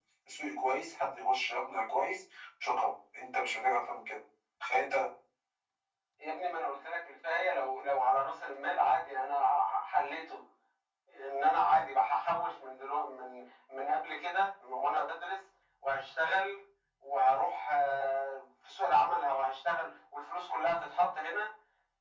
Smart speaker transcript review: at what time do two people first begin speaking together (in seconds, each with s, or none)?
none